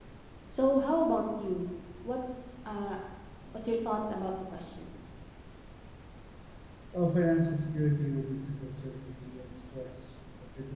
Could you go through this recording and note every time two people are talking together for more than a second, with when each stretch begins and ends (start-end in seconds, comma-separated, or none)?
none